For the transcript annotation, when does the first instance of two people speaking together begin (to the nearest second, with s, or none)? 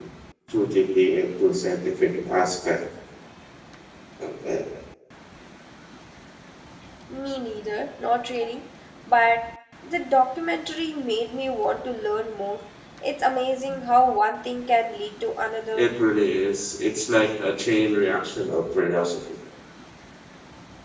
none